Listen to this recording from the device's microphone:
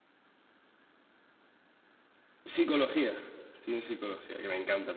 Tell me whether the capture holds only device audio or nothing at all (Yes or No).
No